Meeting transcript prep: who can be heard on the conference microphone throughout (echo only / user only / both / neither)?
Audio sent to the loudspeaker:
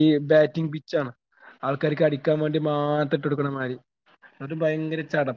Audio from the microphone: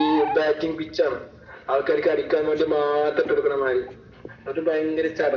echo only